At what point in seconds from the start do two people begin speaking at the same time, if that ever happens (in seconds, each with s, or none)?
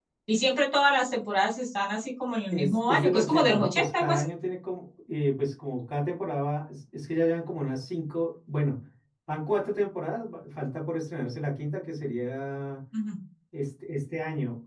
2.5 s